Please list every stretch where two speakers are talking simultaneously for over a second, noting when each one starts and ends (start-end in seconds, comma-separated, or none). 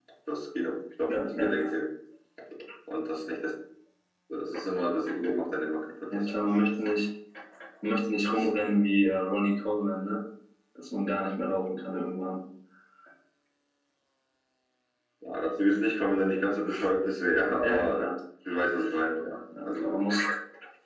none